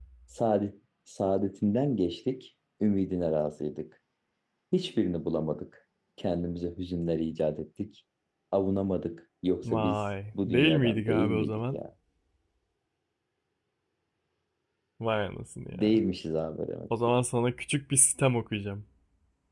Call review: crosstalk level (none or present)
present